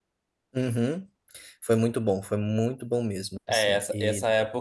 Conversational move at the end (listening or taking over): taking over